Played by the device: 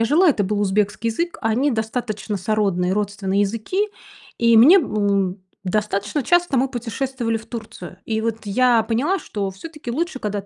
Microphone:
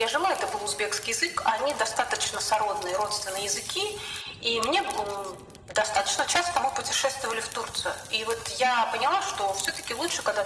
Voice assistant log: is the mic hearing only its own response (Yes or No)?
Yes